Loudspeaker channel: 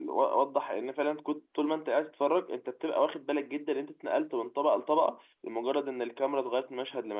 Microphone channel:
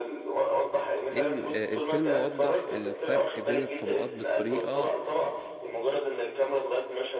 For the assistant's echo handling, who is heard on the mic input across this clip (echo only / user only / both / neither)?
both